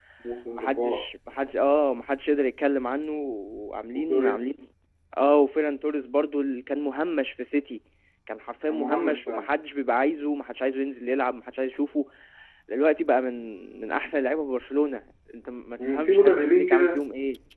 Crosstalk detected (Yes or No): Yes